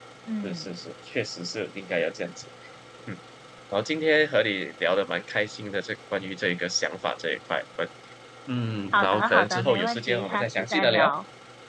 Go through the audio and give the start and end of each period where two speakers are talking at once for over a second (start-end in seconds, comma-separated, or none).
8.9-11.1